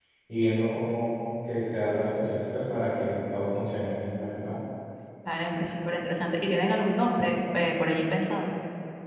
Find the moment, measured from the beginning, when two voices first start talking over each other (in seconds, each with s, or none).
none